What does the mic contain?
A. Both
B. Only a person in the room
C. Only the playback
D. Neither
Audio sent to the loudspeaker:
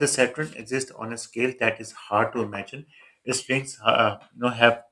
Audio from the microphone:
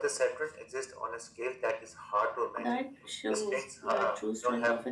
A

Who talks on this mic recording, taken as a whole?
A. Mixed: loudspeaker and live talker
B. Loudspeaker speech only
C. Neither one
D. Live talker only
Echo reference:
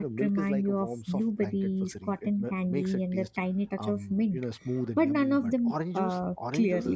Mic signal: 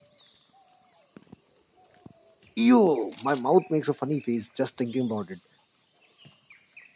D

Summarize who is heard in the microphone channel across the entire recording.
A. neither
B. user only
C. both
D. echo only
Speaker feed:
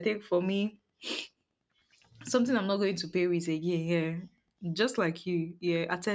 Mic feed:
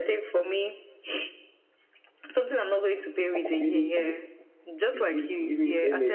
C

